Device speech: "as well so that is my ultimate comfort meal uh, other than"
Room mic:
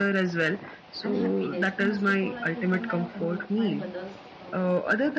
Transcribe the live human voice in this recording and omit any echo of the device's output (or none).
and happiness. And most of all, I prefer my home, my mother's uh,